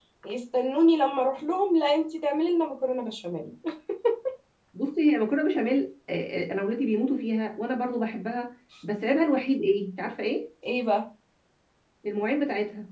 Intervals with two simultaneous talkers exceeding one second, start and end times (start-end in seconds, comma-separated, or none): none